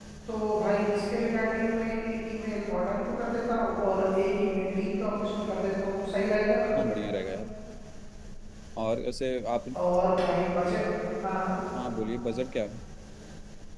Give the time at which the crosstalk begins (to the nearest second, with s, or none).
none